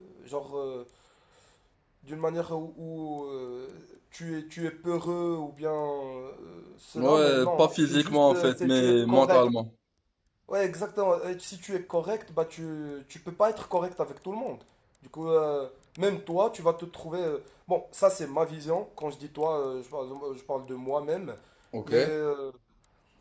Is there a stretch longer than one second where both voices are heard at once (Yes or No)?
Yes